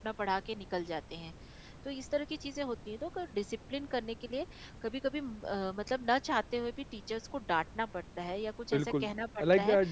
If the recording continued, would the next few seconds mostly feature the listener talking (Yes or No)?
Yes